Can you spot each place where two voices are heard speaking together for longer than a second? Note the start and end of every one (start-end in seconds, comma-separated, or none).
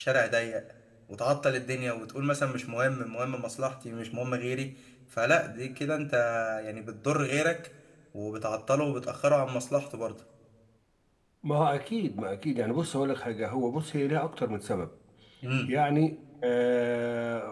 none